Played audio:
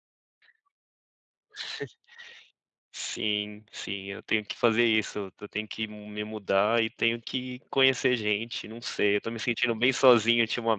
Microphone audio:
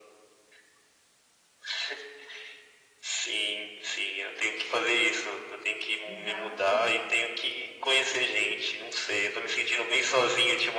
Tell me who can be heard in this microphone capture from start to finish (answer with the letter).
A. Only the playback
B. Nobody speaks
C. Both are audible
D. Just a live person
C